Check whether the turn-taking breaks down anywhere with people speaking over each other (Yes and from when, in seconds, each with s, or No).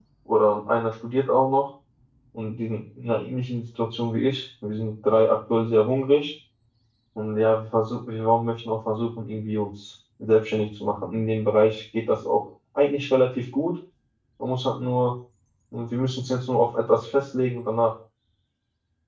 No